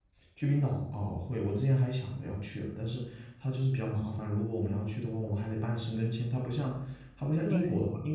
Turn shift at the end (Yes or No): No